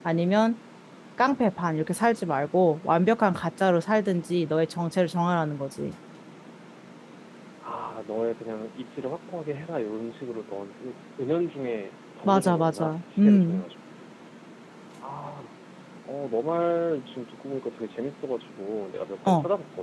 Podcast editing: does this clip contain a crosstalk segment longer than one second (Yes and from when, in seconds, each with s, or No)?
Yes, from 12.2 s